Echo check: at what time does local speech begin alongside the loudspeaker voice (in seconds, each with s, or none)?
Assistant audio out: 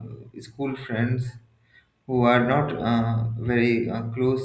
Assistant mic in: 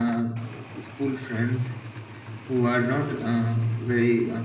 none